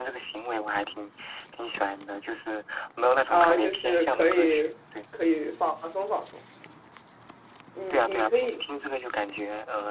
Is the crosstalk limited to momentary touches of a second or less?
No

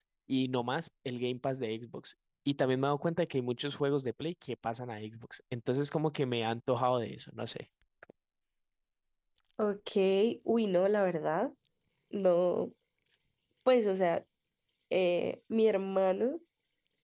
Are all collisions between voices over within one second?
Yes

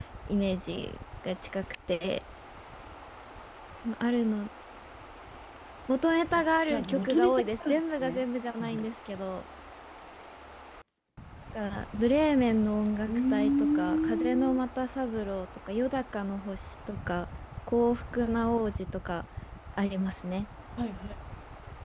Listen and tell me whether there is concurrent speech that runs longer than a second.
Yes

